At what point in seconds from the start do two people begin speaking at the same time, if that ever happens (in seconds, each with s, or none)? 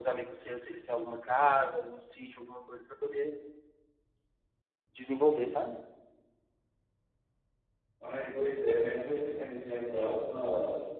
none